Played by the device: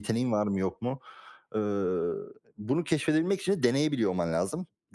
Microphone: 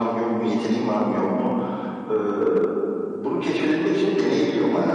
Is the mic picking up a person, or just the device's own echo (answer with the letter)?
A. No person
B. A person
A